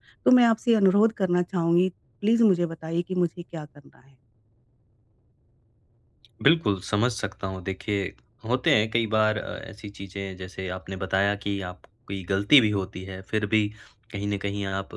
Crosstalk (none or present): none